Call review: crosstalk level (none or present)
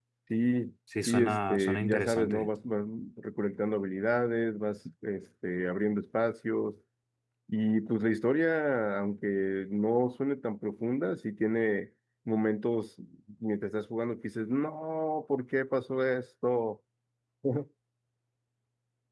present